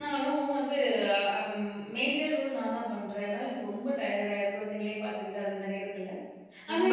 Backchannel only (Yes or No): Yes